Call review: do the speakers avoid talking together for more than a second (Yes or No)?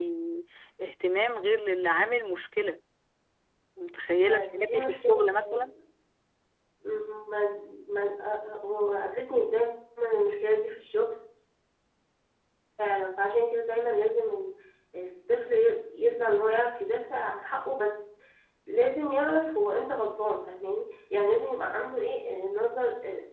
No